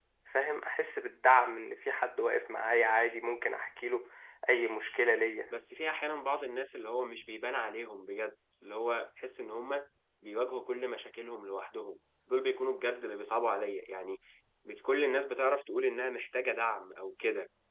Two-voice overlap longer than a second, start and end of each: none

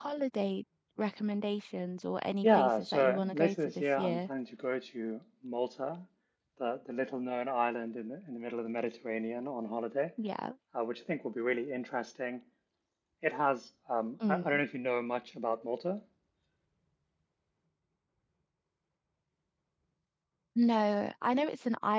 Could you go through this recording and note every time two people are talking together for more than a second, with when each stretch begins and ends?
2.4-4.3

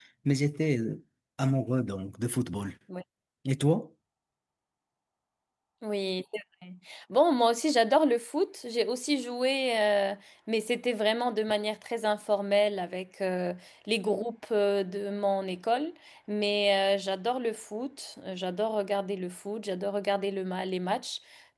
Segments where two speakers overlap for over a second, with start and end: none

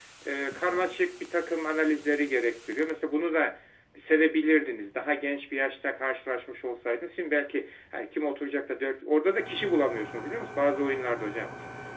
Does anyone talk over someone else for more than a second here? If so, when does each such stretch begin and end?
none

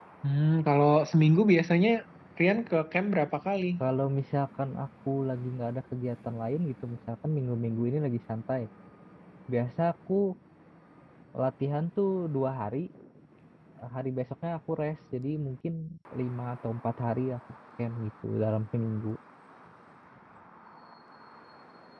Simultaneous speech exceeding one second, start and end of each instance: none

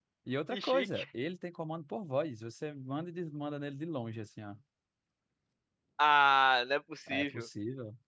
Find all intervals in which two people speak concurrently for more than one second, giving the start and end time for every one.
none

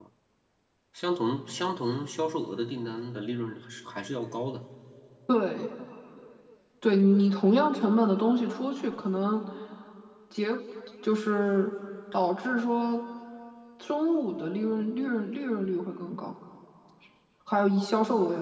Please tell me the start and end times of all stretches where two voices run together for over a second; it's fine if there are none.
none

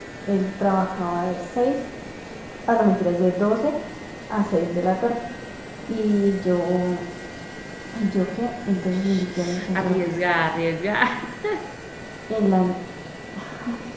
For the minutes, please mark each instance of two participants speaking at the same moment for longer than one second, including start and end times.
8.8-10.1

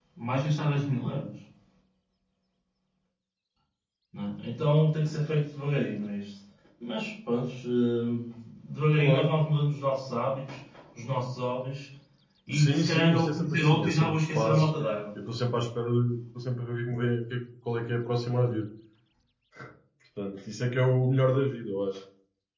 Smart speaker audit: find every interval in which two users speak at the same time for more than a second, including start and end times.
12.5-14.7

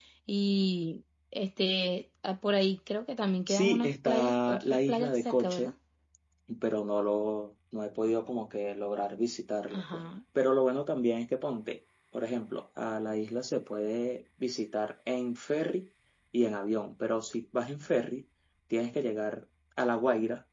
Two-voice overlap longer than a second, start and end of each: 3.5-5.7

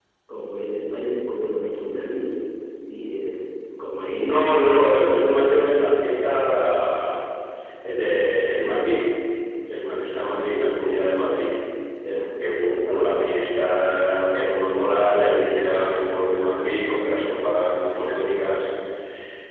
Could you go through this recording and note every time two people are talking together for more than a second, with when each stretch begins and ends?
4.2-6.4

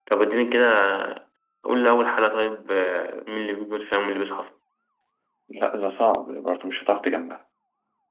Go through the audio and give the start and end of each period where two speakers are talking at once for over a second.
none

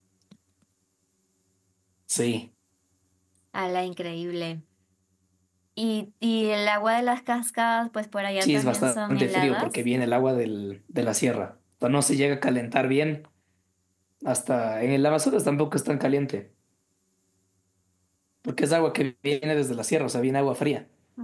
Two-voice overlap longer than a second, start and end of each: 8.4-9.8

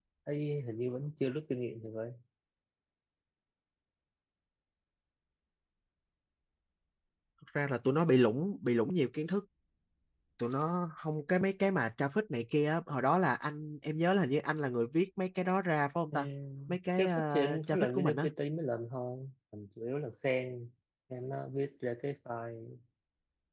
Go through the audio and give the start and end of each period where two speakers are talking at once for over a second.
16.7-18.3

